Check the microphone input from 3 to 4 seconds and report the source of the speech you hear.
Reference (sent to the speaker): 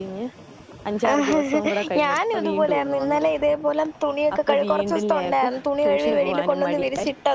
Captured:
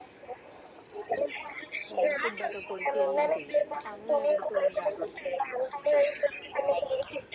both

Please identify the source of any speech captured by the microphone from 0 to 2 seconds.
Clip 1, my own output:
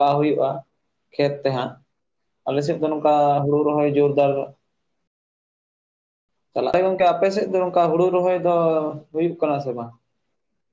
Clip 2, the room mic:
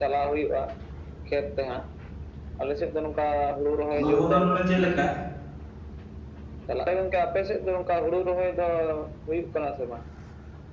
echo only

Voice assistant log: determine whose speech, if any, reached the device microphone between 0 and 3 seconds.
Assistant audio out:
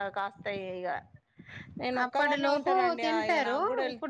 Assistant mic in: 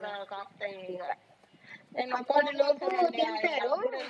echo only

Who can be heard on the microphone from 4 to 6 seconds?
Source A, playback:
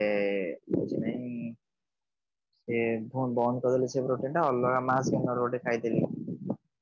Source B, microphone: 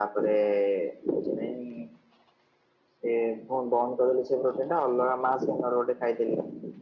echo only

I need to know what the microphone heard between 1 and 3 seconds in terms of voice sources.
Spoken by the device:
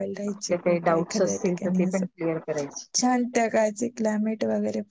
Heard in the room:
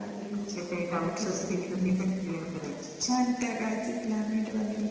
echo only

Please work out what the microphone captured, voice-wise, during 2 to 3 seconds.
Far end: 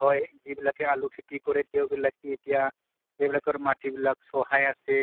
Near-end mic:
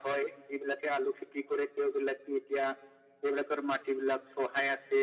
echo only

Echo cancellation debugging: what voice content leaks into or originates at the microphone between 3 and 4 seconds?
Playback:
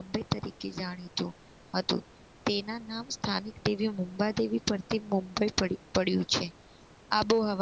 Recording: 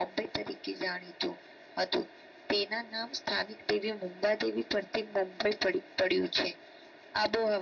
echo only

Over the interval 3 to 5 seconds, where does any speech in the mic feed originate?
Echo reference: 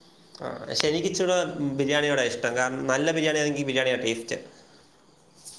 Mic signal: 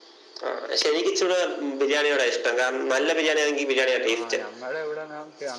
both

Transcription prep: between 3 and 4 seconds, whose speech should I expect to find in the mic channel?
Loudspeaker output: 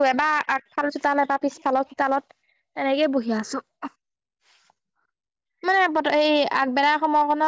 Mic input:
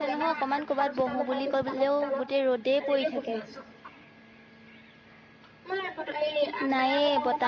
both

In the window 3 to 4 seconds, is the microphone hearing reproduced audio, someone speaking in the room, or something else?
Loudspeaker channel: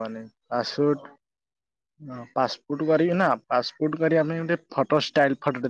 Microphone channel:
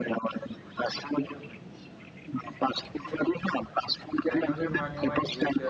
echo only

